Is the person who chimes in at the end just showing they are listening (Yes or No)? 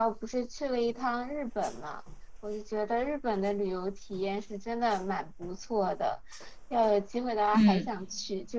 Yes